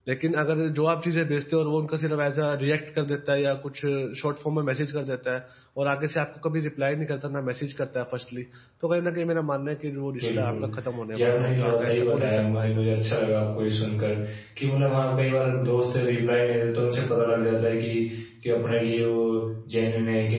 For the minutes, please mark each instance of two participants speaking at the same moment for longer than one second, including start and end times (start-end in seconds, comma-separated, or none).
11.1-12.8